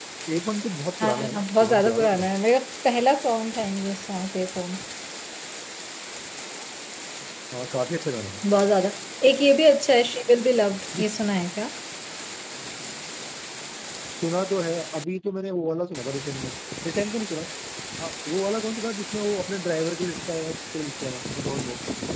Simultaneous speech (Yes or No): Yes